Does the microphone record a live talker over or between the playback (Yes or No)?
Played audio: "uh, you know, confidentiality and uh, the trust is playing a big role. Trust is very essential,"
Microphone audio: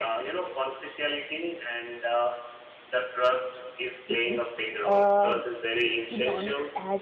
Yes